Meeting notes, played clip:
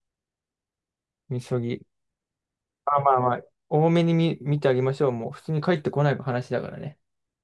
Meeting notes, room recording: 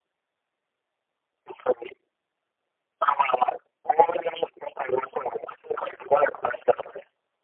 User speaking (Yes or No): No